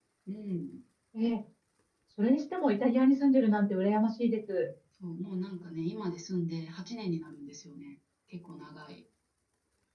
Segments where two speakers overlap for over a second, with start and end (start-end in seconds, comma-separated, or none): none